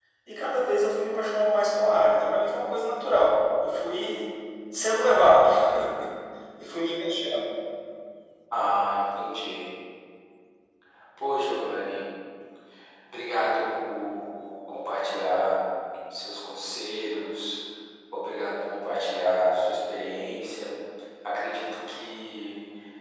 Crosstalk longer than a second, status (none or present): none